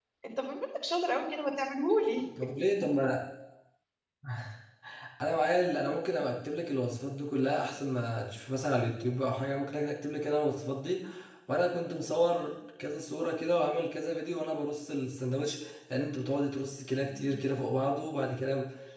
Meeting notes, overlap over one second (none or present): none